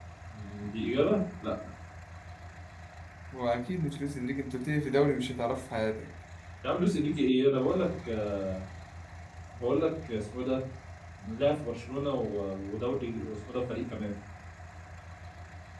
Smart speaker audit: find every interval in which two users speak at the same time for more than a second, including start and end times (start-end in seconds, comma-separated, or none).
none